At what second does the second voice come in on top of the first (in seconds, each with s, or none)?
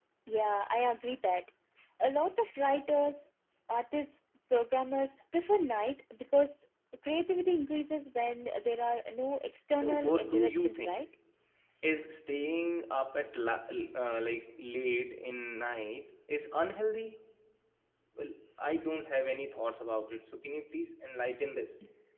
9.7 s